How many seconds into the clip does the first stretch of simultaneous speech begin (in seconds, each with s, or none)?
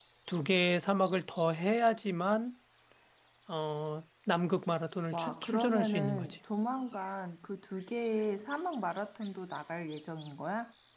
5.1 s